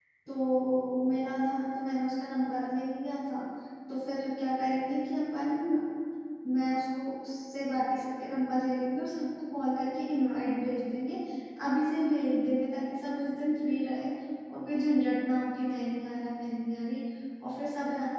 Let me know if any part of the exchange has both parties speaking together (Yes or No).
No